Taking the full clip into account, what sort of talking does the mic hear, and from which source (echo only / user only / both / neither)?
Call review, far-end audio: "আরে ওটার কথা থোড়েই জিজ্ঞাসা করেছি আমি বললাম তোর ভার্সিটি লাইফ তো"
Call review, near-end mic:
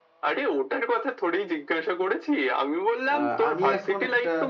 both